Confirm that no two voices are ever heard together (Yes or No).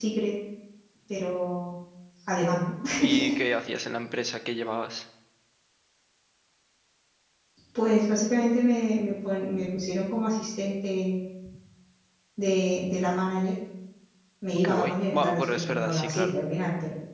No